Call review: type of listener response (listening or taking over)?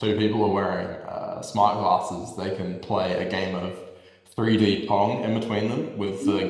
listening